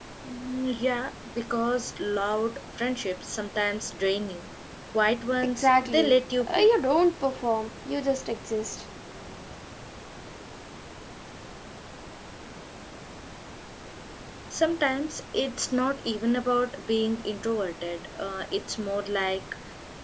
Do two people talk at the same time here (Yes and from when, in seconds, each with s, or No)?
Yes, from 5.4 s